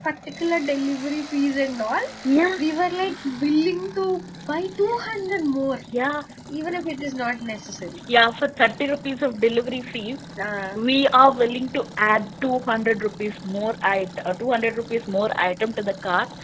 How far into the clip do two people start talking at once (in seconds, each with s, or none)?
none